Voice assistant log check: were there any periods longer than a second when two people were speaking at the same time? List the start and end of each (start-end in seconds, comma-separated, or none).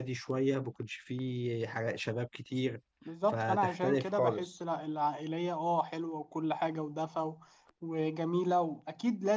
3.3-4.5